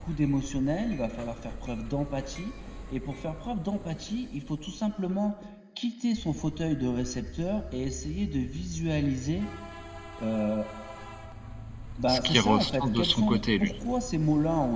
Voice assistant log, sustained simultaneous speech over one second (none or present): present